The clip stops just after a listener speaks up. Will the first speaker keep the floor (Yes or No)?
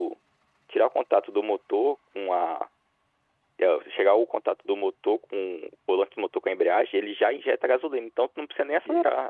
No